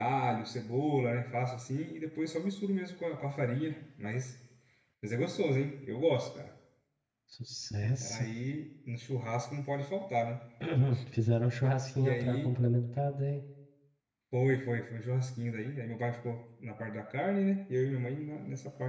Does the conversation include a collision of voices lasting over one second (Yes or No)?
No